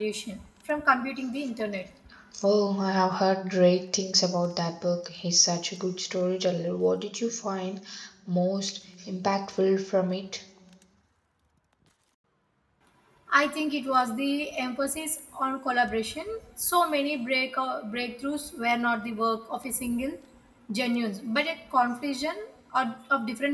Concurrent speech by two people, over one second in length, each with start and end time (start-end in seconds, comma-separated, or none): none